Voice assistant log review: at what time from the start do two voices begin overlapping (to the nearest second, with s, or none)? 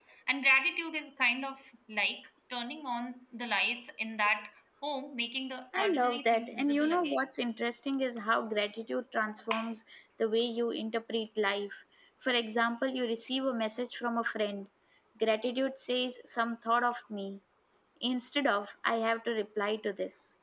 6 s